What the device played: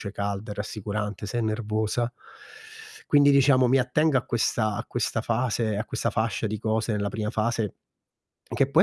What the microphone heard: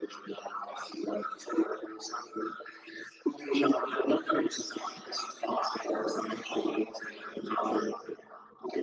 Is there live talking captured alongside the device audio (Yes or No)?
No